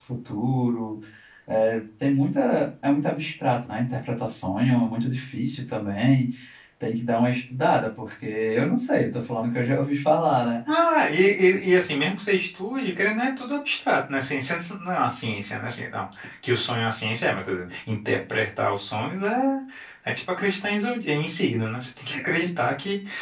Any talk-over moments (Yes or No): No